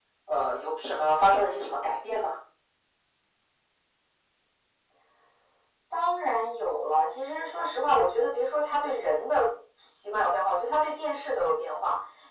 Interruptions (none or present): none